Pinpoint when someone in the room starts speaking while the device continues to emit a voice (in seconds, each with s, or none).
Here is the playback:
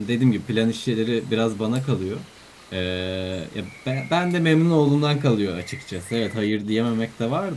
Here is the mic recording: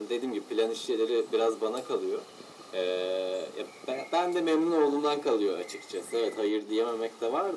none